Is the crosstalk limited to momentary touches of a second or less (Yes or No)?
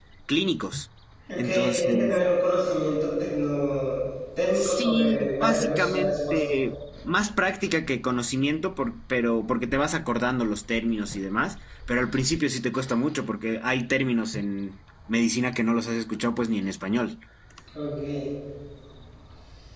No